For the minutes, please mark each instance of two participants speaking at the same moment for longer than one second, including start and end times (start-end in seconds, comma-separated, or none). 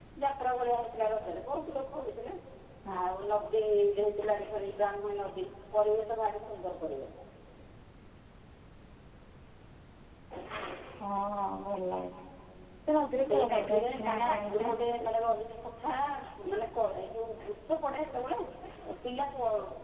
13.2-14.7